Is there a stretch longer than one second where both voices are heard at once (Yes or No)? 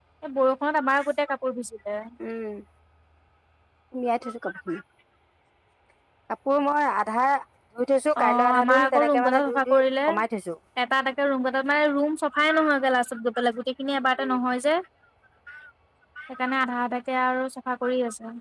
Yes